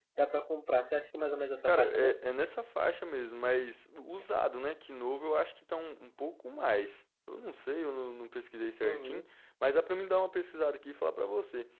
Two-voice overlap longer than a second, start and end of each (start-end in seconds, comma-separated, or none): none